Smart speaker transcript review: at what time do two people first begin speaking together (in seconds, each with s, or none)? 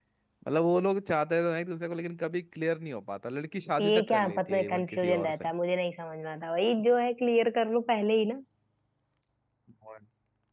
3.8 s